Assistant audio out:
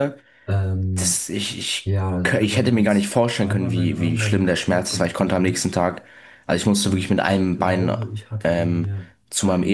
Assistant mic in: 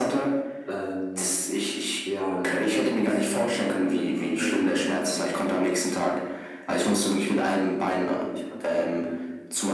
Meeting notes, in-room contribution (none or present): none